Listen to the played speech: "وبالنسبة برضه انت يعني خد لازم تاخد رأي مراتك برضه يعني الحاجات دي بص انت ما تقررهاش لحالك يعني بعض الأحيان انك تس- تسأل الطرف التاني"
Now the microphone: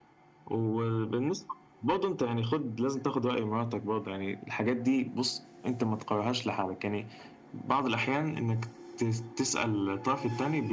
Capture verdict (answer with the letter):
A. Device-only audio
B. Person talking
A